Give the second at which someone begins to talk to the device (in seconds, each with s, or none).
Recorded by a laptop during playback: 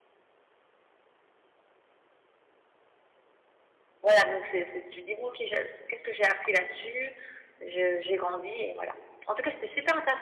4.0 s